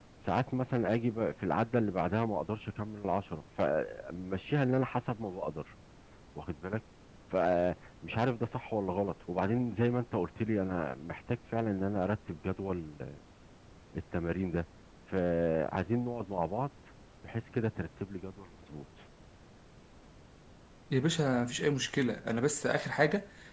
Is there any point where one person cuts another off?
No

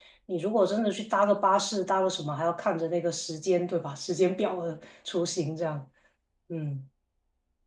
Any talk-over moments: No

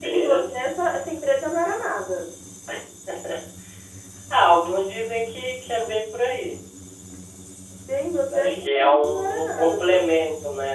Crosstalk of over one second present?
Yes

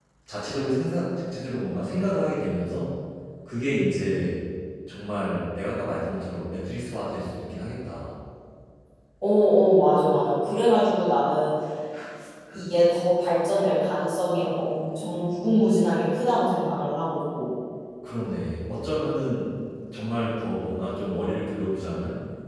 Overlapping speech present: No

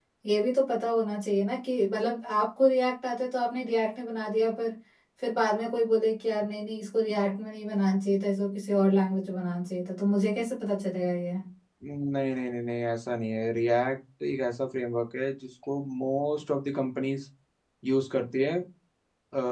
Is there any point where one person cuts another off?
No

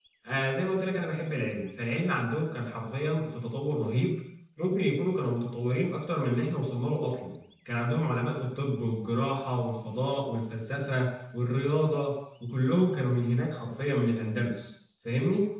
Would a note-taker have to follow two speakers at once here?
No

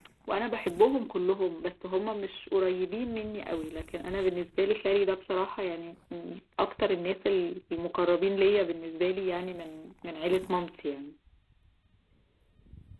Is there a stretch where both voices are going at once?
No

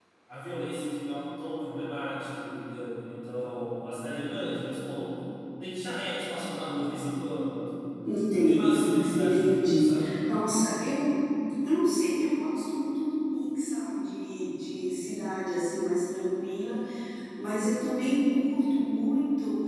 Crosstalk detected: Yes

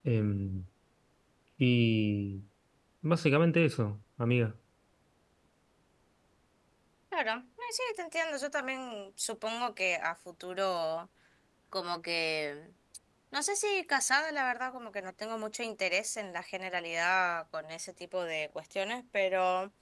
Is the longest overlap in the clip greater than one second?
No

